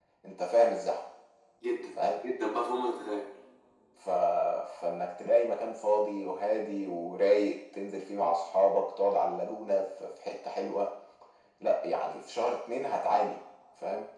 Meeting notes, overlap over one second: none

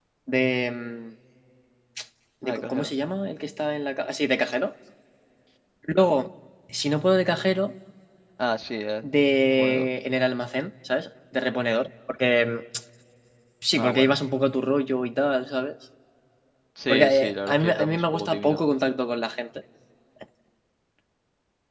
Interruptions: present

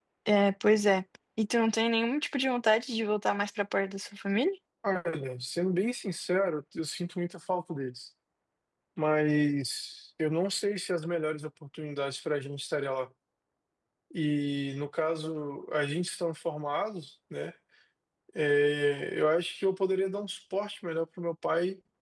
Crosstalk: none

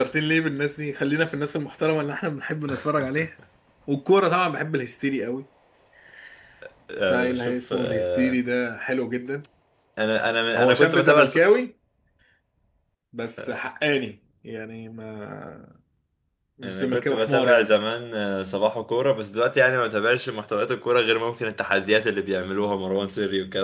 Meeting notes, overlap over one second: present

